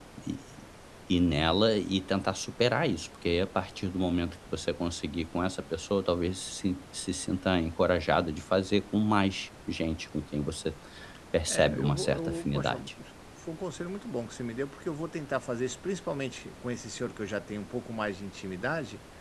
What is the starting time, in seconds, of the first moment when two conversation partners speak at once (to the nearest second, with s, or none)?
11 s